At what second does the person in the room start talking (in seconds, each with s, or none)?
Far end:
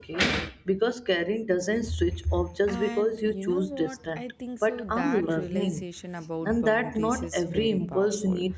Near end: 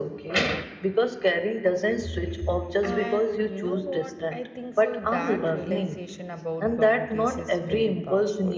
none